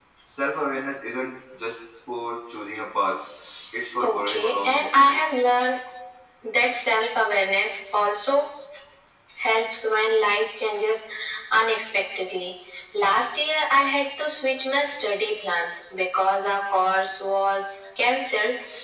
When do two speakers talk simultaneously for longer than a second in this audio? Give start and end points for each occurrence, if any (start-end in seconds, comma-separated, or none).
4.0-5.2